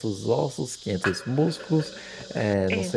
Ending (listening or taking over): listening